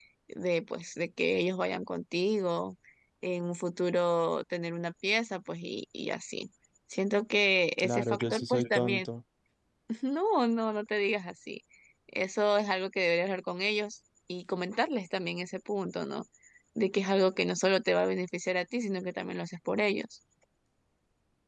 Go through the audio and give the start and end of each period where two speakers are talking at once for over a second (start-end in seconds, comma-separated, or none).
7.8-9.1